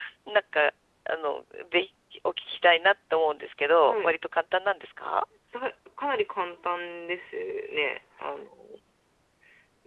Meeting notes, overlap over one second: none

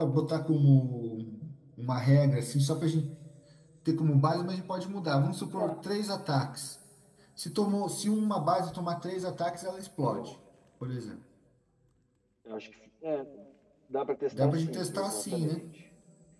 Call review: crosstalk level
present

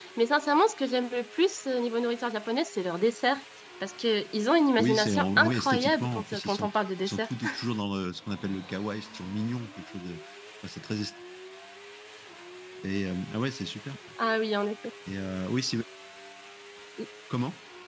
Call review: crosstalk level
present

